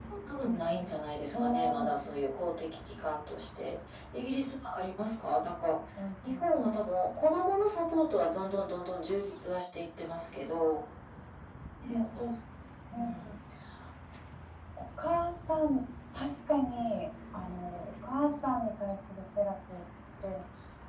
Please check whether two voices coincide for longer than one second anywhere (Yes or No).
No